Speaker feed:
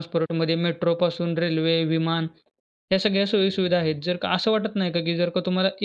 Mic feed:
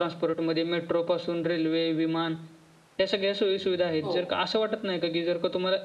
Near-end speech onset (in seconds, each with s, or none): 4.0 s